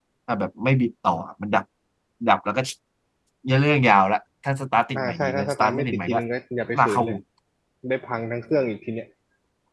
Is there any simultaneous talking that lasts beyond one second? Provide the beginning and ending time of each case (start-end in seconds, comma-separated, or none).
5.0-6.2